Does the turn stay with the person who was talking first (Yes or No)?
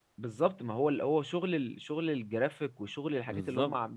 Yes